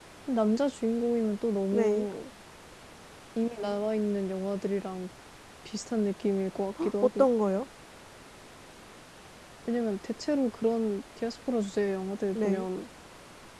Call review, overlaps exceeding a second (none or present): none